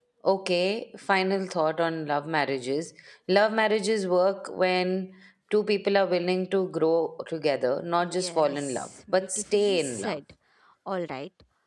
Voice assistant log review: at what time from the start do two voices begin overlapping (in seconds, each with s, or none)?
8.2 s